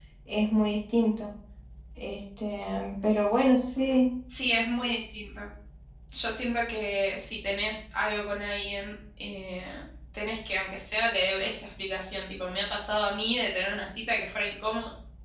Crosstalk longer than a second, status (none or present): none